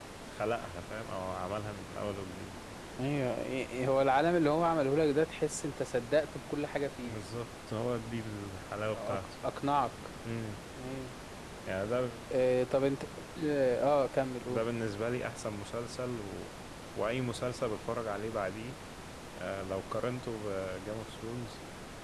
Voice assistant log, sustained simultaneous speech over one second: none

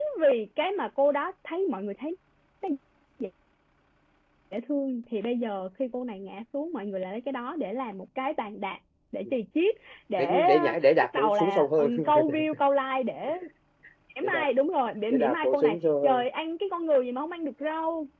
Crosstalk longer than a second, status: present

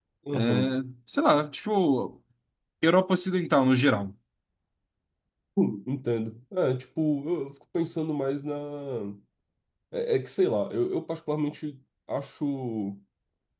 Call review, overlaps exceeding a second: none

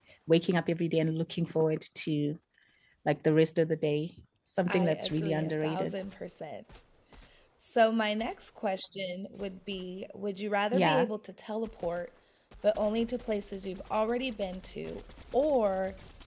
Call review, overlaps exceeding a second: present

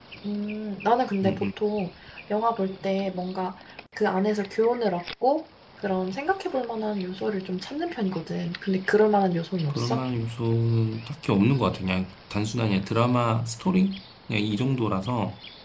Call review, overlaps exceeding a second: none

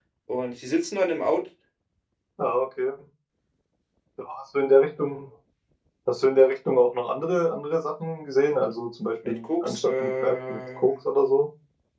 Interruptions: present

